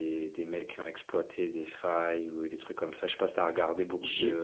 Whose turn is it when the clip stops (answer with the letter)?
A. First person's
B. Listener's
B